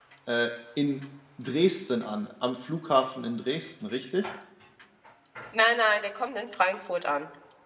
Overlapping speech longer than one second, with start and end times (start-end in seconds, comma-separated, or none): none